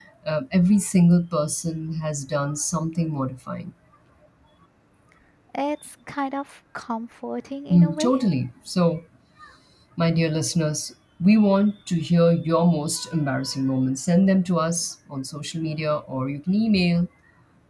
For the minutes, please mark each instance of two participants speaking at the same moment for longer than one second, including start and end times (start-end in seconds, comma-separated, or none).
none